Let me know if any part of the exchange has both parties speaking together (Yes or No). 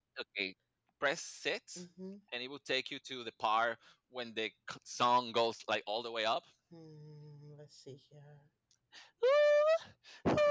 No